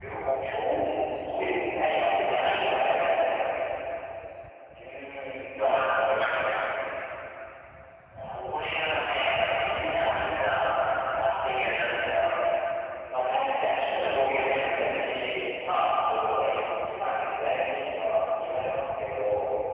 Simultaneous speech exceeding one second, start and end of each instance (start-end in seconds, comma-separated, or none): 2.0-3.3, 13.2-14.8